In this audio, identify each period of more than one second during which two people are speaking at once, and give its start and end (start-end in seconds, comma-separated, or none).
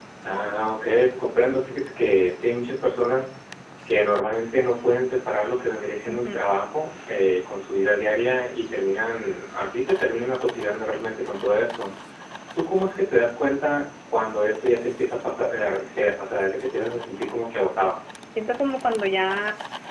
none